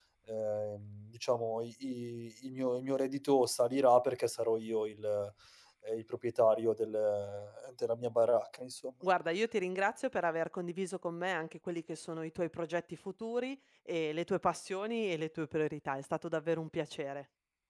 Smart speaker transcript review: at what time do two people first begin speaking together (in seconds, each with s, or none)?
none